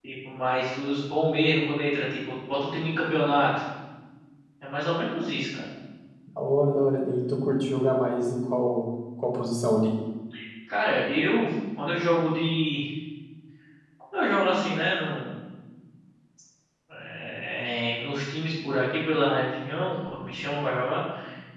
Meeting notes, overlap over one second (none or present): none